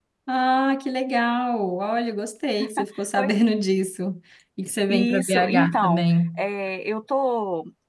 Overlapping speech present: Yes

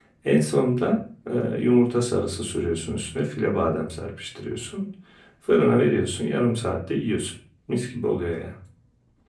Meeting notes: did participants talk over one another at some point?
No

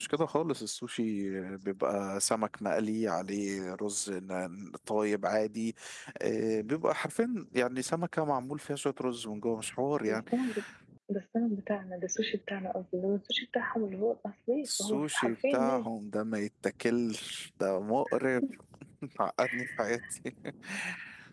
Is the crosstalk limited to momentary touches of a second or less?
No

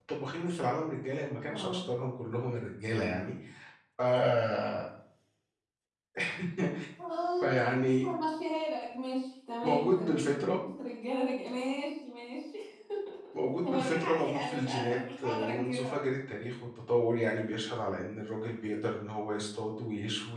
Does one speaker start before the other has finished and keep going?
Yes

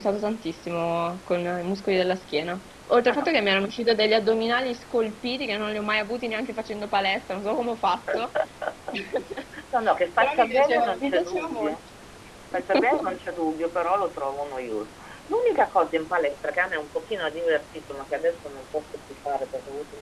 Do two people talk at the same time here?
Yes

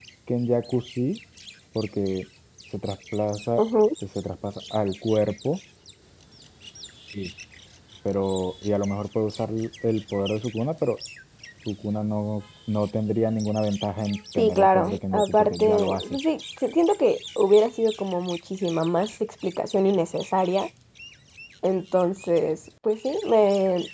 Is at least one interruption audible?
Yes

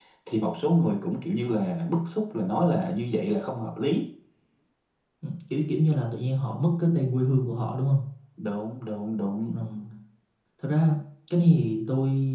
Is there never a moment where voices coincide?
Yes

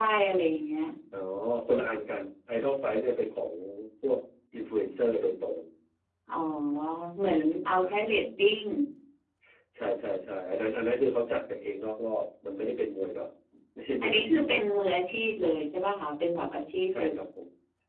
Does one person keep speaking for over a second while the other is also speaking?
No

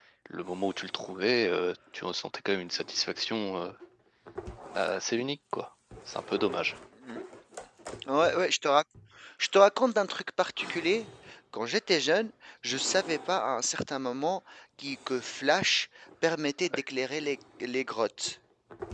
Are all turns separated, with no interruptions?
Yes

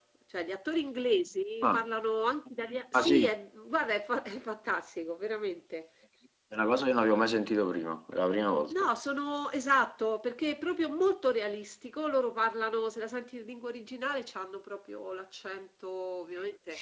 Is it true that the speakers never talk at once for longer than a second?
Yes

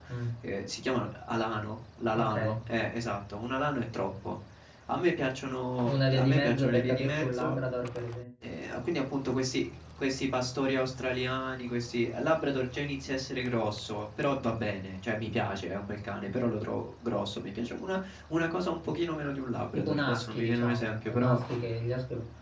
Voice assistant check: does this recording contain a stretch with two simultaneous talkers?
Yes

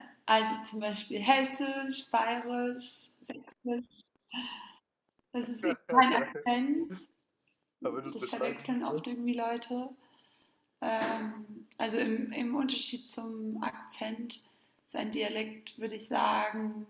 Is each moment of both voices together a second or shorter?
No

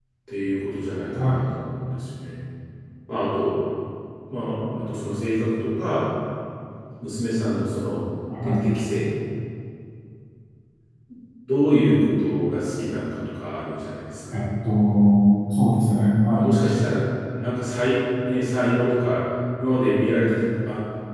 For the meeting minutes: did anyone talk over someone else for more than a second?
No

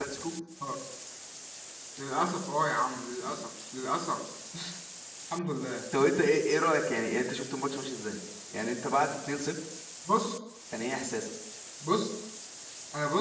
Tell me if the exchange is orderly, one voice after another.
Yes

